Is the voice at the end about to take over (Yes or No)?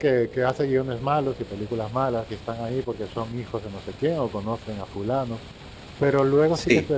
No